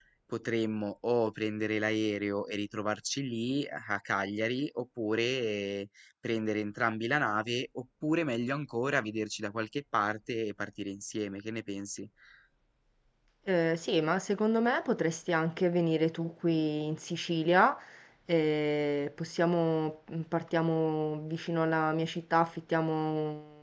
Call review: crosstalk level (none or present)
none